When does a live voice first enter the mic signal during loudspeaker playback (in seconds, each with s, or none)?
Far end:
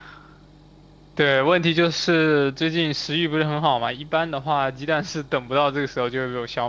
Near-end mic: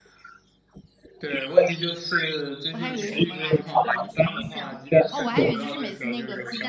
2.7 s